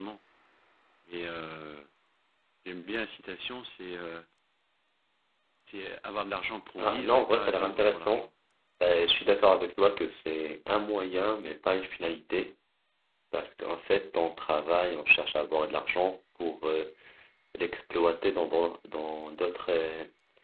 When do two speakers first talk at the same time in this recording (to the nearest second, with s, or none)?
7 s